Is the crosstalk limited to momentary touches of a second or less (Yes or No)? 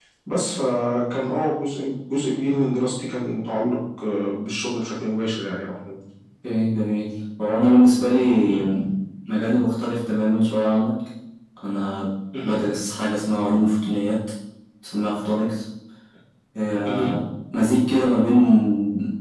Yes